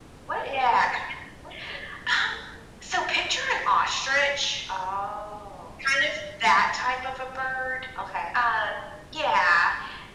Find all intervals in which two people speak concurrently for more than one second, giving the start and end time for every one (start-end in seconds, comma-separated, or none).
none